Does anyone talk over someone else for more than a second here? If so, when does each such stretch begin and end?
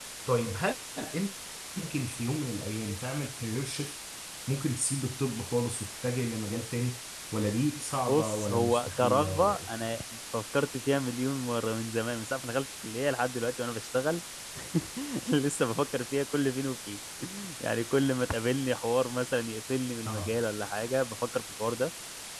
8.1-9.7

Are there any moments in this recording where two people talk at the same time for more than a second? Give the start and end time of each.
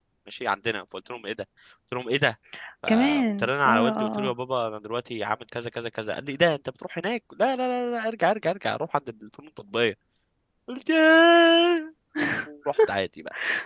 2.9-4.3

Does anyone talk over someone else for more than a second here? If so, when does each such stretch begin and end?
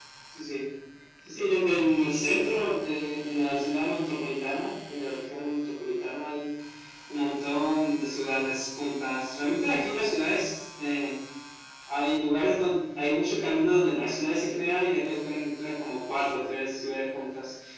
none

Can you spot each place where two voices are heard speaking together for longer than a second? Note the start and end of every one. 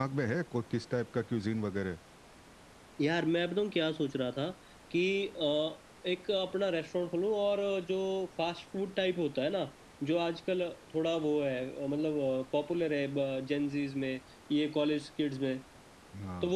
none

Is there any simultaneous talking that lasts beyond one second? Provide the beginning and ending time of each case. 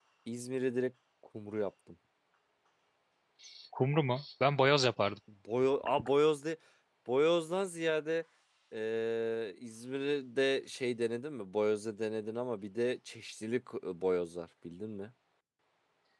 none

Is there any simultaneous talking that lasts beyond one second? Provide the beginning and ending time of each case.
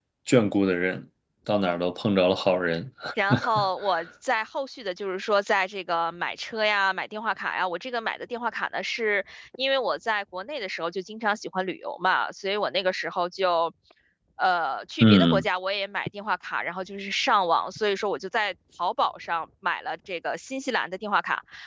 none

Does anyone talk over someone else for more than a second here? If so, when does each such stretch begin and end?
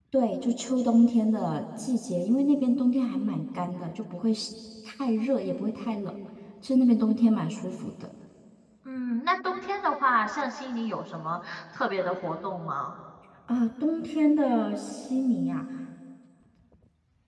none

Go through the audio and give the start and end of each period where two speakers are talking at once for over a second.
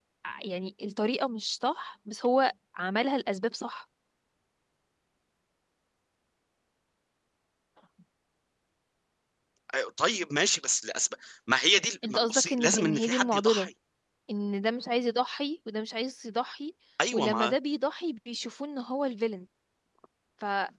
12.0-13.7

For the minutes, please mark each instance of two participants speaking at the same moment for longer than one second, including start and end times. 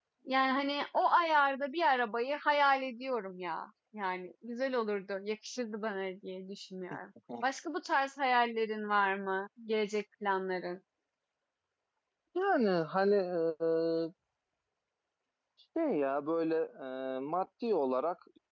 none

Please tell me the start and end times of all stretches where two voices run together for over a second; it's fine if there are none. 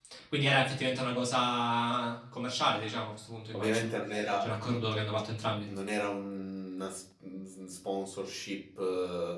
none

